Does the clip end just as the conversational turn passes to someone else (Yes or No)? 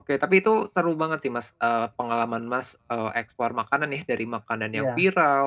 No